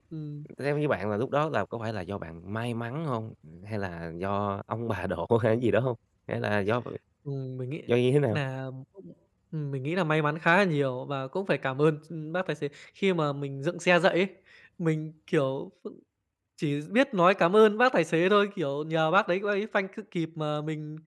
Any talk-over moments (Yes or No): No